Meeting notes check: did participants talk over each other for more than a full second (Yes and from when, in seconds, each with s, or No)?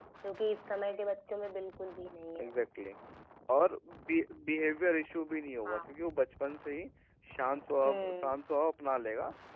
No